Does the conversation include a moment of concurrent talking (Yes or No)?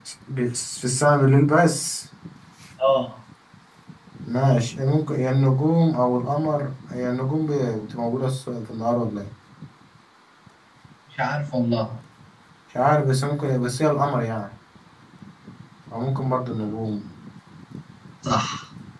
No